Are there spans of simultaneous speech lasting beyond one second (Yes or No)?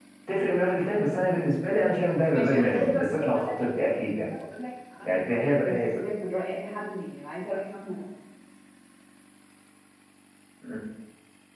Yes